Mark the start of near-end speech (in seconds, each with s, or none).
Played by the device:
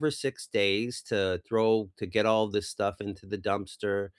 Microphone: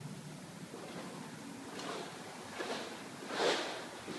none